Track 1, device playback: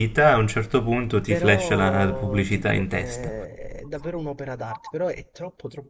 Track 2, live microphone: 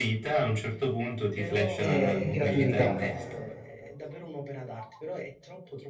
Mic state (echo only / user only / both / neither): both